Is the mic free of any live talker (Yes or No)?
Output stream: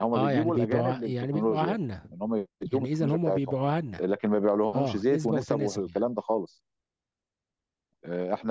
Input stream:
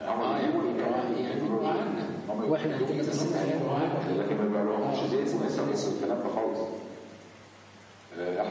No